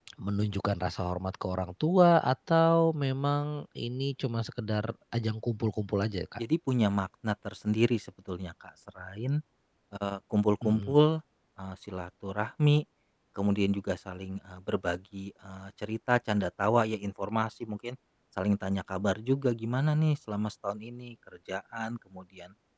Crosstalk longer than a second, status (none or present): none